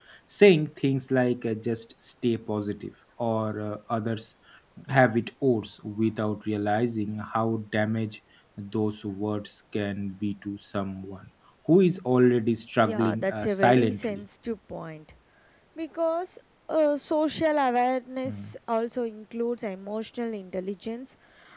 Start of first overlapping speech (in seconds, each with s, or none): 12.8 s